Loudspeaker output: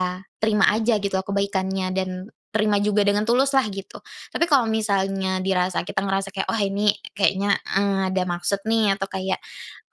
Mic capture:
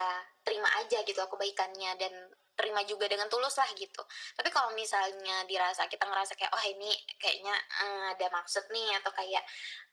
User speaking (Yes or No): No